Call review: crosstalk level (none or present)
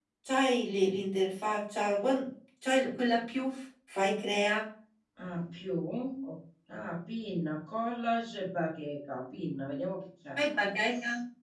none